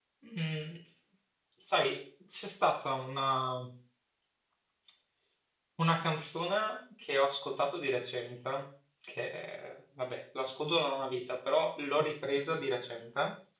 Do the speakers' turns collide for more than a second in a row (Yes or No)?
No